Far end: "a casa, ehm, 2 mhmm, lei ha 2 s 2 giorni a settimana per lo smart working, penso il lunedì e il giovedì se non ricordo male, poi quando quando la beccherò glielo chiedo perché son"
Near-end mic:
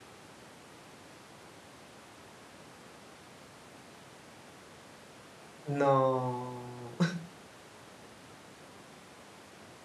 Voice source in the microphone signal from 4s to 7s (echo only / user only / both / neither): user only